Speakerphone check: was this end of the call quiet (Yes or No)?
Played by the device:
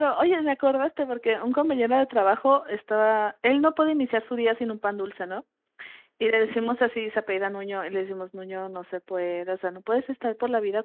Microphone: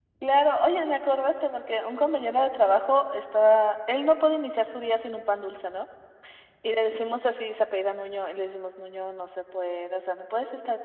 Yes